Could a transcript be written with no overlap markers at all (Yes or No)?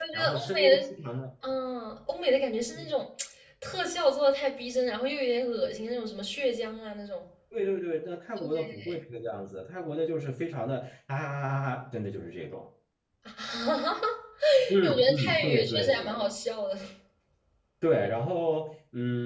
No